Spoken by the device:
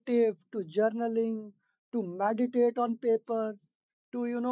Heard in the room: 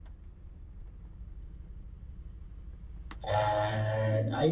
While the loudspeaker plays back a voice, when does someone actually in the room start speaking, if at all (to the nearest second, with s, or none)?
3 s